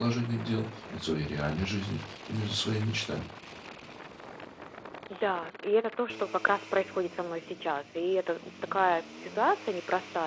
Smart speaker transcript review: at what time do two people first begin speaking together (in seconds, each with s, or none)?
none